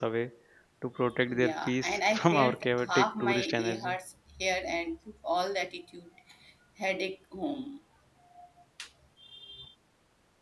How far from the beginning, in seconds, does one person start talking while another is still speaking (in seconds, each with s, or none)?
1.3 s